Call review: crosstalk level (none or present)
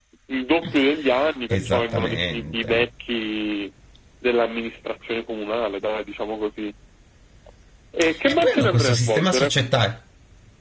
present